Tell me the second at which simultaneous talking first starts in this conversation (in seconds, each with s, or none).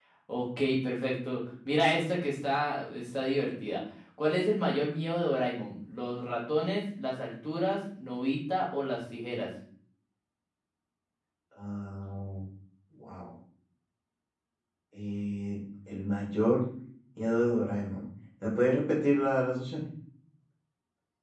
none